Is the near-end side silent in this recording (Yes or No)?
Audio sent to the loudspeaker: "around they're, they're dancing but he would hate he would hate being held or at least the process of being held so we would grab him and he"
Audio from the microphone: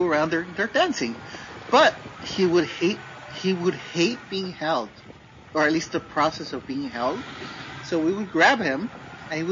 Yes